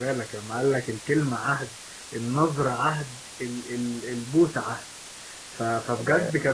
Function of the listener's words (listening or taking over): listening